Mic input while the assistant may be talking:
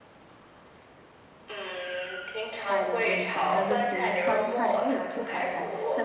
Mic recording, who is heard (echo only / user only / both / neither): both